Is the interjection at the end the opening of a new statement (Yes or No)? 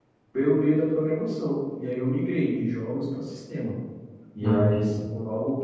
No